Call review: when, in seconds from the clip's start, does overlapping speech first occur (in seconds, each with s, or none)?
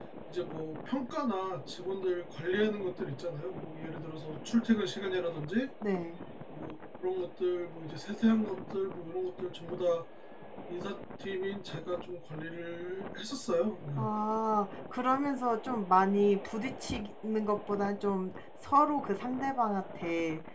none